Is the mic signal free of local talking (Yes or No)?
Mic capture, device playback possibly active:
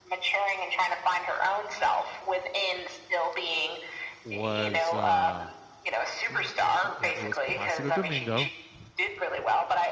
No